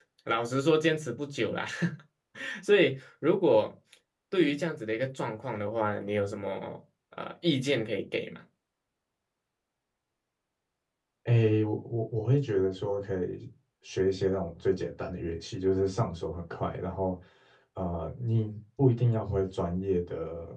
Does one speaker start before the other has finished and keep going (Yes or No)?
No